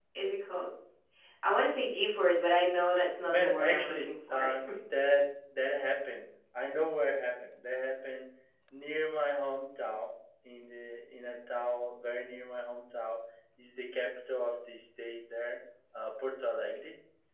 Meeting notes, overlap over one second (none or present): present